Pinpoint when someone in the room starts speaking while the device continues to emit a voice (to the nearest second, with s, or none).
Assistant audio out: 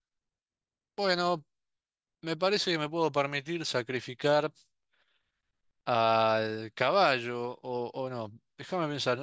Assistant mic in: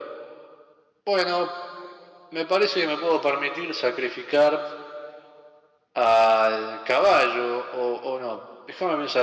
none